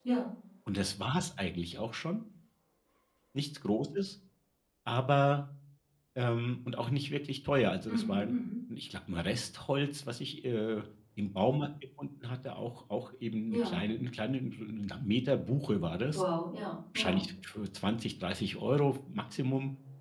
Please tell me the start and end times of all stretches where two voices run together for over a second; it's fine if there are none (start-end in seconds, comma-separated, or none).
none